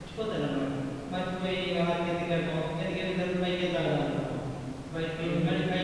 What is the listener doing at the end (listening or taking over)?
listening